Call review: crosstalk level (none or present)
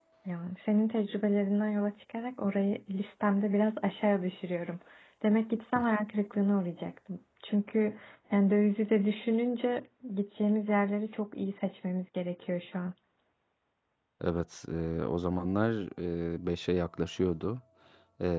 none